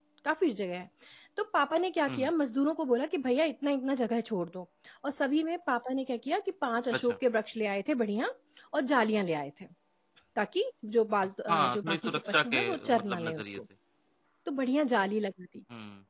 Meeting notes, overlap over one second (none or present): present